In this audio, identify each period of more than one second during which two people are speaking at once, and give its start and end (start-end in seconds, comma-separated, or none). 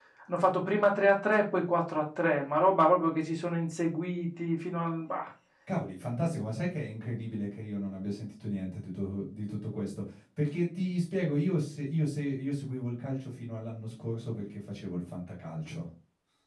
none